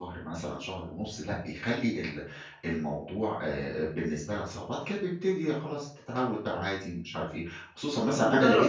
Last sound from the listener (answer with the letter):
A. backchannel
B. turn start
B